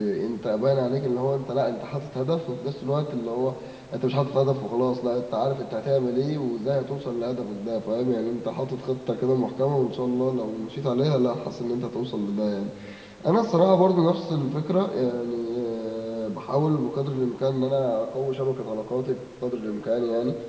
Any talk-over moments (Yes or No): No